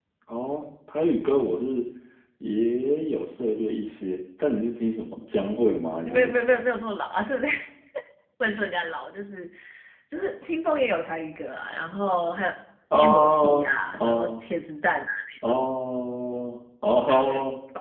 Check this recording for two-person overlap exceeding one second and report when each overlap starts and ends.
12.9-14.4

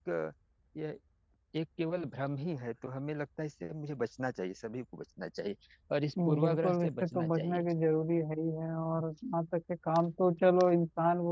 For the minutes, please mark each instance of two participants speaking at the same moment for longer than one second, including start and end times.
6.2-7.6

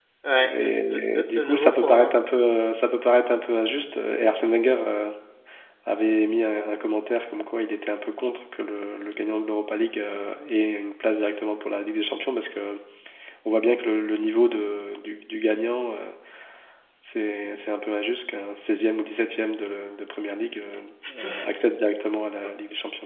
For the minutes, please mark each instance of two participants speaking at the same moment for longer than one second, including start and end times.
0.6-2.1

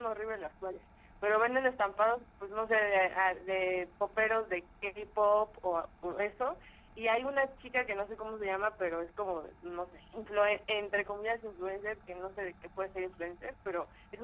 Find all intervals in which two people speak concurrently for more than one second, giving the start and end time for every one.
none

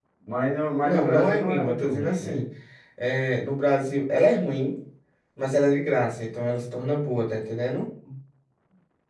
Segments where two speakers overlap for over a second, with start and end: 0.8-2.4

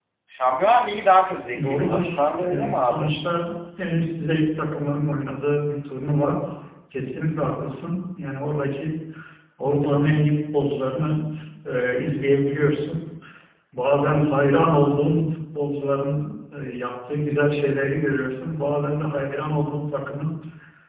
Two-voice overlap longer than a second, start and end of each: 1.7-3.1

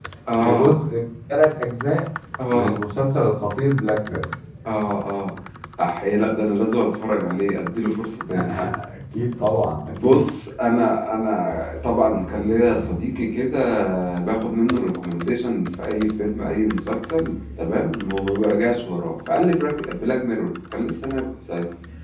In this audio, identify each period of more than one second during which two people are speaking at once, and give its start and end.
none

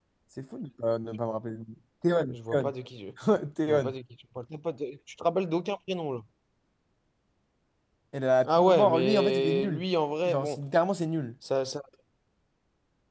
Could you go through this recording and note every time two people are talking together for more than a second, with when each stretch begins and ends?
8.4-9.8

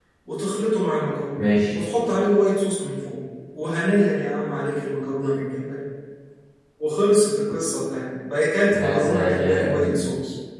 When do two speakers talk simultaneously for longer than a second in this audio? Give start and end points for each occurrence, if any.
8.7-10.0

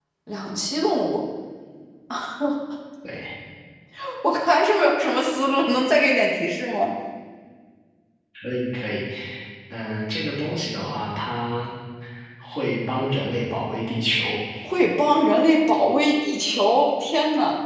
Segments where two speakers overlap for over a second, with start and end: none

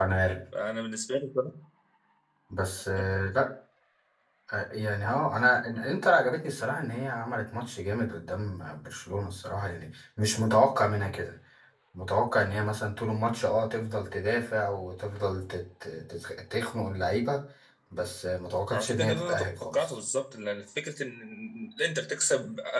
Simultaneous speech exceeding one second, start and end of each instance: 18.7-20.0

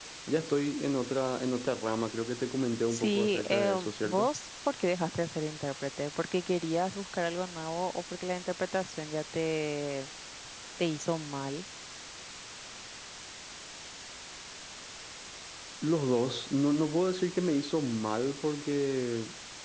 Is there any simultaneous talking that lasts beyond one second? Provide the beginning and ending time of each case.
2.9-4.3

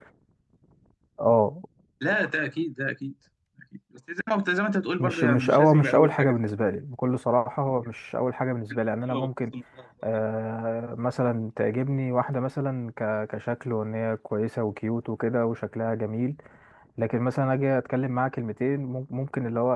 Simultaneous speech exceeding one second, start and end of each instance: 5.0-6.3

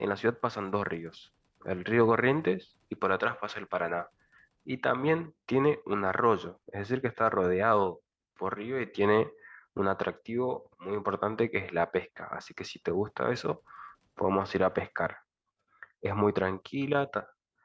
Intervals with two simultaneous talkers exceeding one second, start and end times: none

